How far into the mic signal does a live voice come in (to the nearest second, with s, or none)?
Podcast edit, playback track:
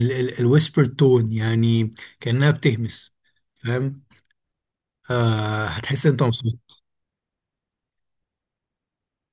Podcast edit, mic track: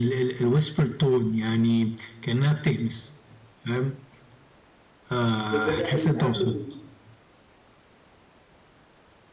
5 s